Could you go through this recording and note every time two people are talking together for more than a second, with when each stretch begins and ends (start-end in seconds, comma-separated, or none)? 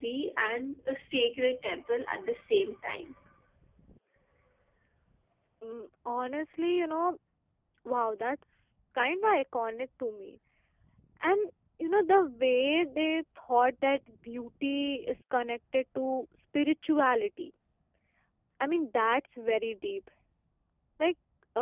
none